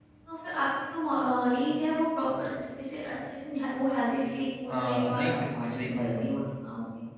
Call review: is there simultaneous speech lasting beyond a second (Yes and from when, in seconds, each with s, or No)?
Yes, from 4.7 s